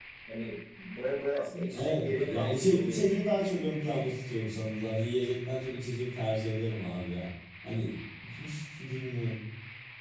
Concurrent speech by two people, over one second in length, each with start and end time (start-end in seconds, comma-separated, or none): 1.7-3.2